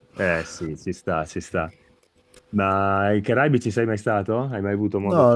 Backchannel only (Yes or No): No